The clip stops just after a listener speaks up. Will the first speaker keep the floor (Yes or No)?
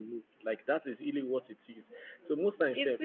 Yes